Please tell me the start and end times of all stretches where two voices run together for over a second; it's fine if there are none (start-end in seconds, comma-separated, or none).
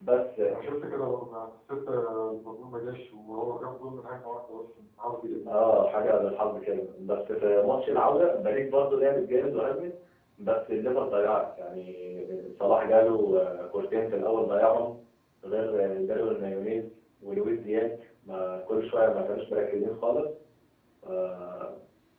none